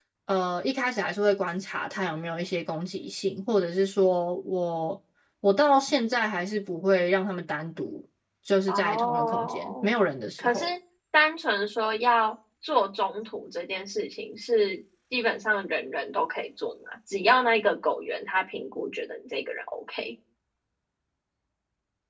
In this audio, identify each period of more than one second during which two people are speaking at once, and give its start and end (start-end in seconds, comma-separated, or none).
8.7-9.9